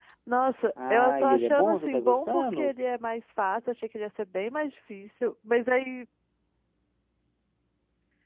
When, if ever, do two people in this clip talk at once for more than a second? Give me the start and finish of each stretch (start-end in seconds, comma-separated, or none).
0.9-2.7